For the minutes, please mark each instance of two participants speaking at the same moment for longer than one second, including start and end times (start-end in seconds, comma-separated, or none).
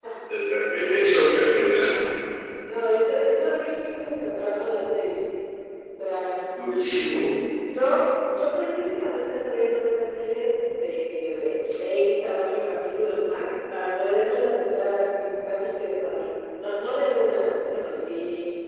none